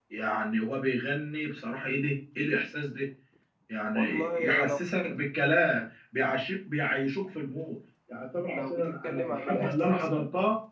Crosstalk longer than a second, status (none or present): present